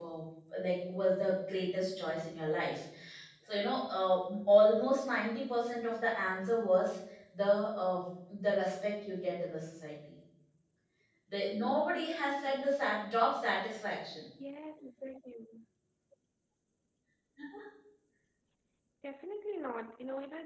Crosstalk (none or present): none